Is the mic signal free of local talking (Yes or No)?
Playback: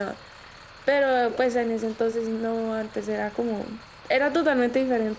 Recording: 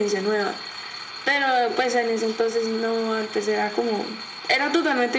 Yes